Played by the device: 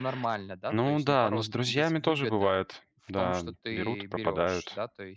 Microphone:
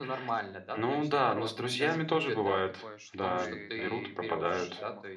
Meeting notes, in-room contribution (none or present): present